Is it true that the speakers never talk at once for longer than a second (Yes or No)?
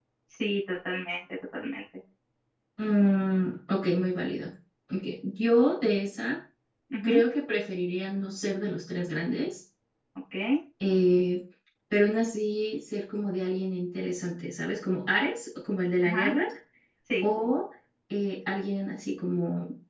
Yes